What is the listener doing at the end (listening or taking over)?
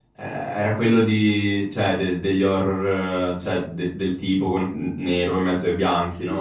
taking over